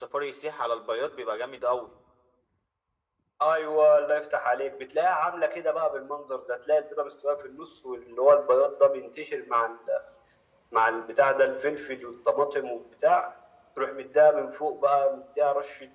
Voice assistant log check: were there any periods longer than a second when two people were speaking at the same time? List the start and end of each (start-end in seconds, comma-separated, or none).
none